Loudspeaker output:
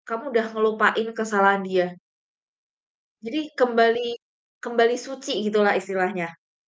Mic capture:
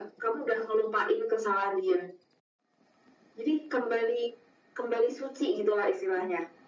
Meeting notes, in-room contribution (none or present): none